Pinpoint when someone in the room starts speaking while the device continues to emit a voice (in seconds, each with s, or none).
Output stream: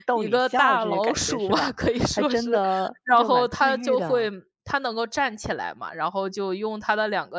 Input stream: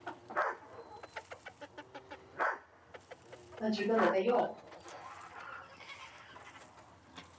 3.6 s